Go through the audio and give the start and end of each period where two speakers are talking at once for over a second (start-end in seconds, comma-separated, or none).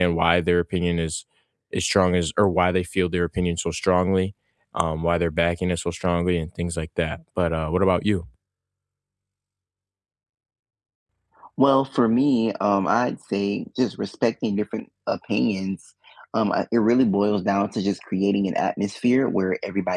none